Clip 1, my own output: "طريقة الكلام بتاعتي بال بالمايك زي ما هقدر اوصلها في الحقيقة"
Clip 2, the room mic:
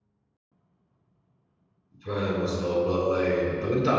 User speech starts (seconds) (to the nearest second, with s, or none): 2 s